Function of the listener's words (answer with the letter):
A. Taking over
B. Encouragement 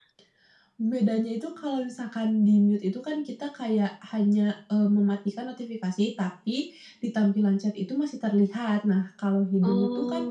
B